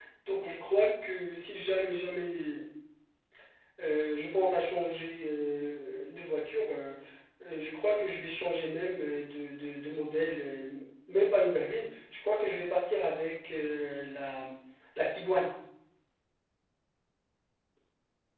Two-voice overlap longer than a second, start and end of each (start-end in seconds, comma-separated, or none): none